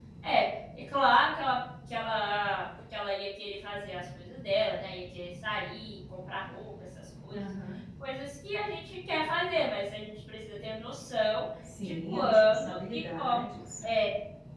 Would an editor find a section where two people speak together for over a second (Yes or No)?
Yes